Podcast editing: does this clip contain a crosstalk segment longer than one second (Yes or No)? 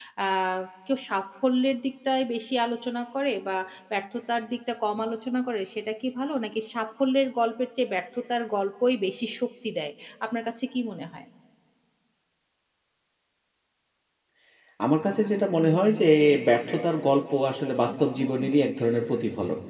No